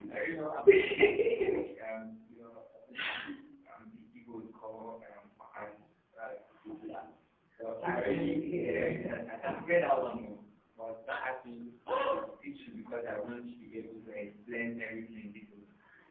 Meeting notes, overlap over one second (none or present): present